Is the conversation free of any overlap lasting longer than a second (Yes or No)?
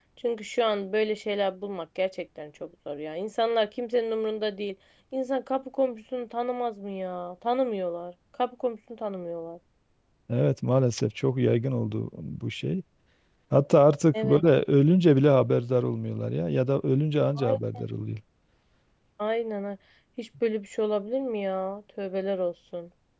Yes